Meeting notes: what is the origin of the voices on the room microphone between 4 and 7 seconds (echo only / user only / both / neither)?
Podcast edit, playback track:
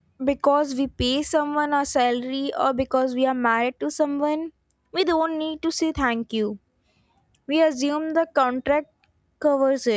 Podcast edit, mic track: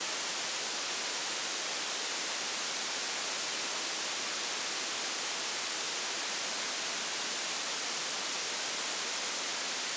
neither